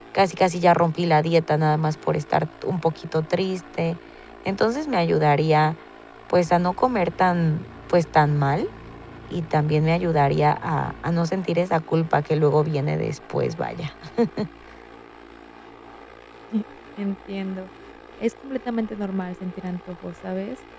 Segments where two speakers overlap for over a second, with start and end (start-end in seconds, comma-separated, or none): none